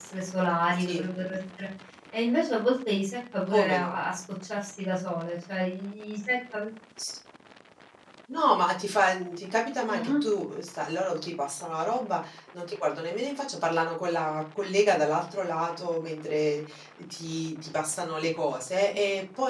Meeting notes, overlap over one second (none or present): none